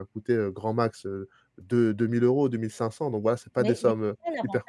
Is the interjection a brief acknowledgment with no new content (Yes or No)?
No